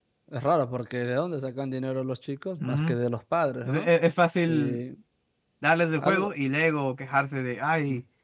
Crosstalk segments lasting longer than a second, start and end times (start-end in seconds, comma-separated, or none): none